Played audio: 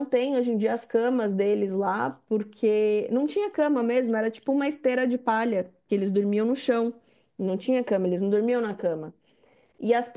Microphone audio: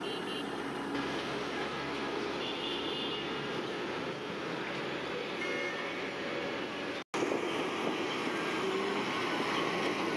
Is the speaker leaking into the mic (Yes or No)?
No